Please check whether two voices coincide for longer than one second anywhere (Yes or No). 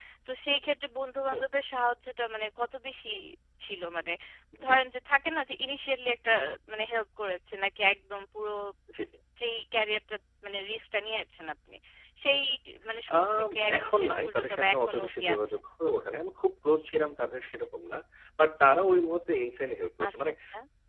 Yes